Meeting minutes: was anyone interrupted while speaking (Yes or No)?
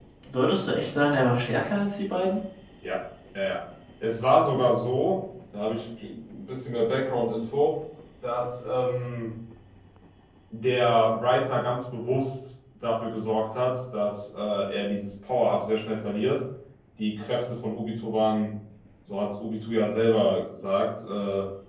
No